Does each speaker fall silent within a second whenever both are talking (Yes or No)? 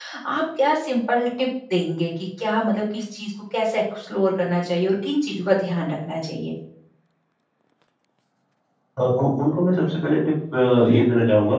Yes